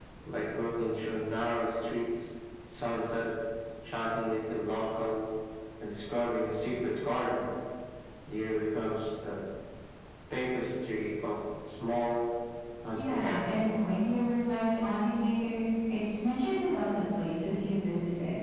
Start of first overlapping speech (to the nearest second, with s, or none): 13 s